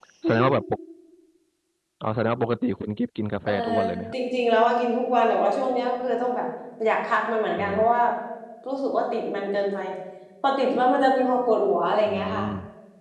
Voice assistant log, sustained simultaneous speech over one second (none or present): none